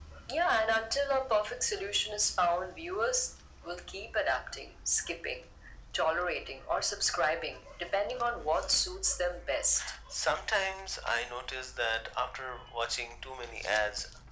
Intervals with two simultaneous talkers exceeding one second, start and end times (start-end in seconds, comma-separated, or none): none